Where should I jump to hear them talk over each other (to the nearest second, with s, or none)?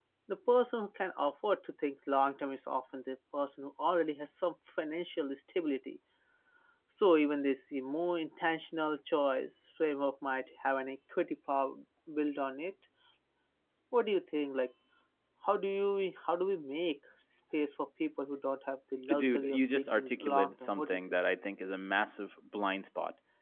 19 s